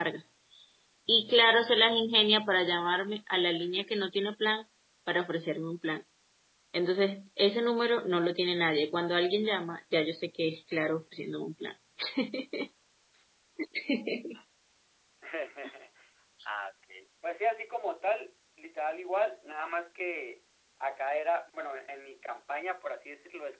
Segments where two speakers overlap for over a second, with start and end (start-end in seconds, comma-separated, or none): none